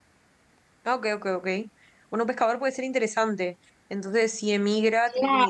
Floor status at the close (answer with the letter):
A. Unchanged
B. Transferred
A